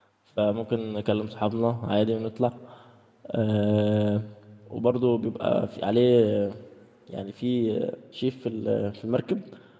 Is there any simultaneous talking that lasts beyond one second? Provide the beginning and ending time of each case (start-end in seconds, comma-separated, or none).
none